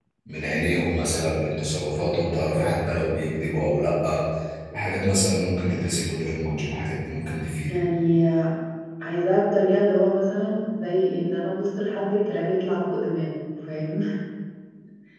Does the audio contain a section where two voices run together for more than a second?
No

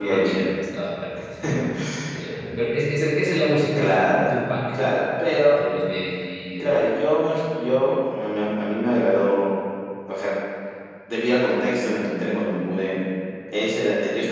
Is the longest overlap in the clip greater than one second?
No

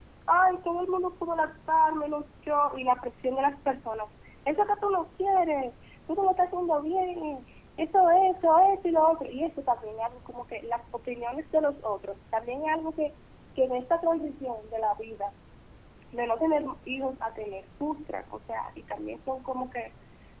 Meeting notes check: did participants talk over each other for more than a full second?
No

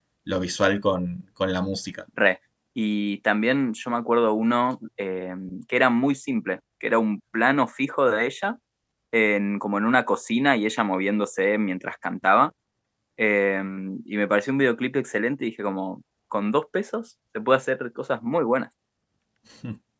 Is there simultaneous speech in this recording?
No

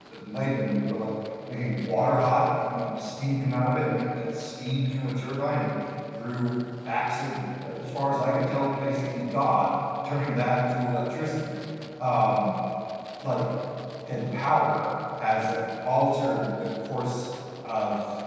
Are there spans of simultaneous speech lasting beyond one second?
No

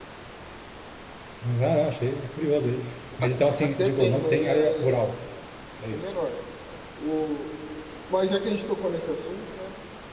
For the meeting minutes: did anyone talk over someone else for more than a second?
Yes, from 3.6 s

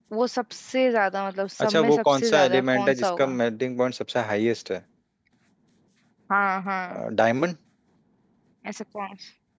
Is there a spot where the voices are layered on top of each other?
Yes, from 1.6 s

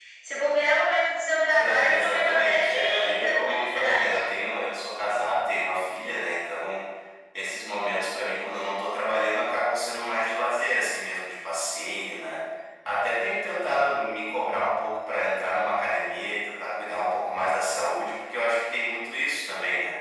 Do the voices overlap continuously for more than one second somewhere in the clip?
Yes, from 1.5 s

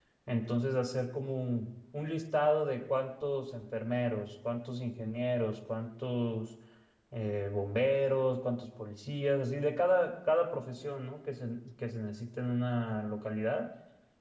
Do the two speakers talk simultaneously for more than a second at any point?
No

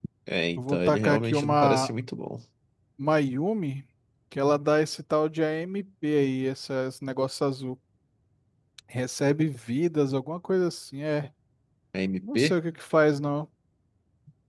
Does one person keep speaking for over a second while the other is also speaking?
Yes, from 0.6 s

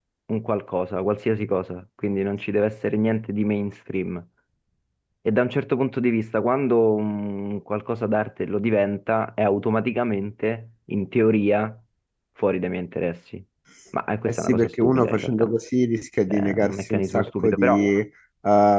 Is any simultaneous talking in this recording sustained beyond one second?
Yes, from 14.3 s

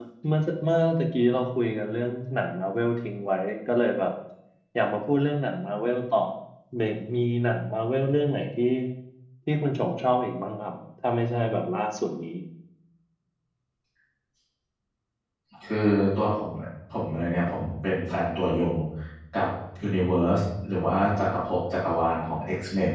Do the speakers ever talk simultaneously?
No

